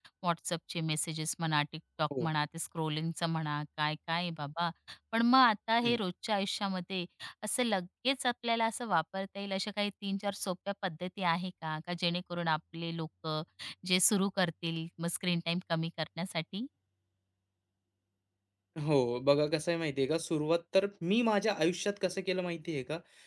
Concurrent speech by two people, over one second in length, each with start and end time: none

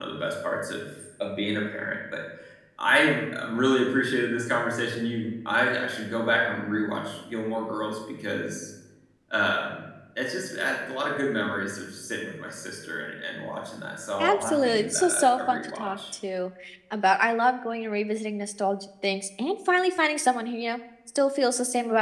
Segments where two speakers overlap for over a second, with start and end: 14.2-16.0

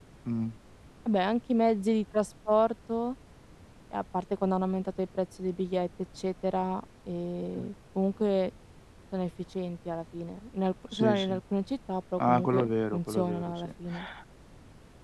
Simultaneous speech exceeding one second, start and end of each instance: 12.2-13.7

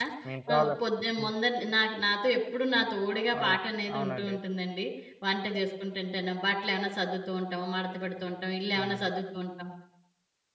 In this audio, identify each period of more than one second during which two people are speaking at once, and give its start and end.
none

